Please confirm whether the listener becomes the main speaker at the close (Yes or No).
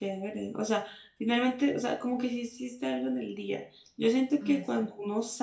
No